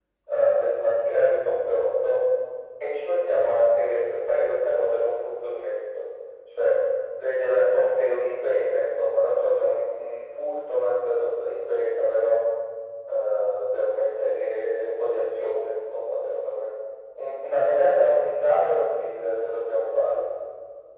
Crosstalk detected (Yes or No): No